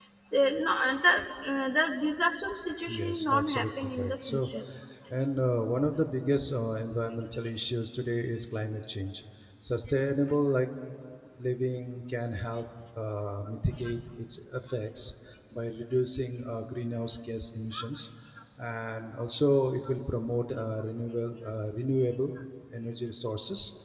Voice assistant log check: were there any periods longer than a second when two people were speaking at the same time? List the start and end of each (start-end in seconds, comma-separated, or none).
2.9-4.5